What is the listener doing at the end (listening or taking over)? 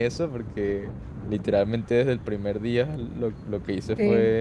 listening